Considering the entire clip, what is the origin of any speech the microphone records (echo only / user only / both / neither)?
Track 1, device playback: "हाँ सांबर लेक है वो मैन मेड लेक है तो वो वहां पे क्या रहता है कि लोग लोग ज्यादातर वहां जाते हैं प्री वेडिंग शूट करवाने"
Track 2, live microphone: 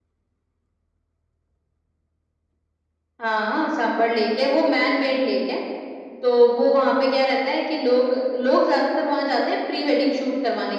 echo only